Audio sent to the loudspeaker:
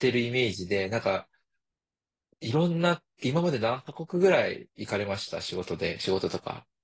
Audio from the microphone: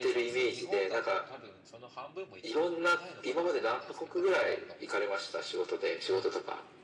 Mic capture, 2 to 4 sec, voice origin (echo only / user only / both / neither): both